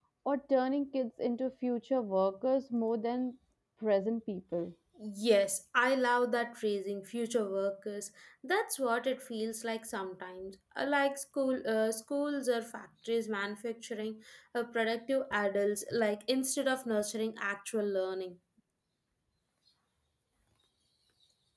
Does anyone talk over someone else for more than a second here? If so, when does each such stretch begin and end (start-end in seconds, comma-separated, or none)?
none